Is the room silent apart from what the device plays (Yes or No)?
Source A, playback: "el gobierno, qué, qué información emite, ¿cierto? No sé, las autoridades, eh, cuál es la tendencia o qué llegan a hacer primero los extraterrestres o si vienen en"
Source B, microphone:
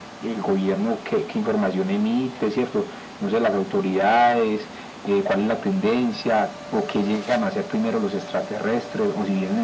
Yes